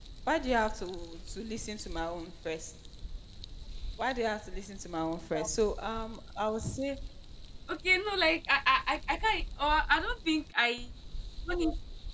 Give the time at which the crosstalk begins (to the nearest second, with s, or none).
none